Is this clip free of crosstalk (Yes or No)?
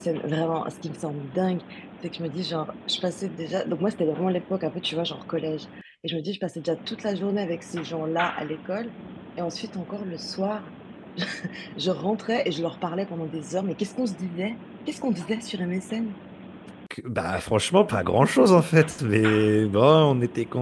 Yes